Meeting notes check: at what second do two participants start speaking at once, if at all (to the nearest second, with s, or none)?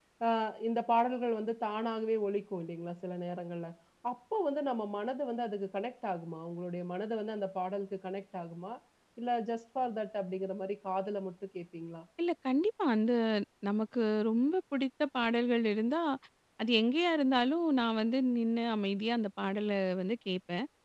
none